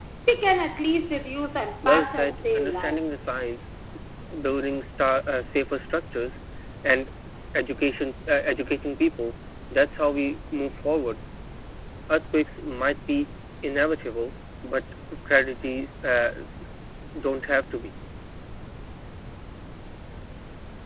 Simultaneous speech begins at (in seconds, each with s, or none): 1.6 s